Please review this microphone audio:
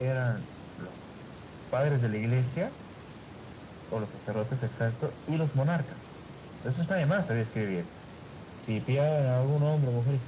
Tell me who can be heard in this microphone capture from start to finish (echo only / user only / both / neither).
echo only